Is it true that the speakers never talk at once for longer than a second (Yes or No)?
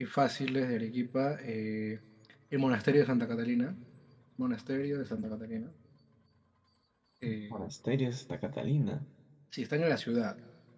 Yes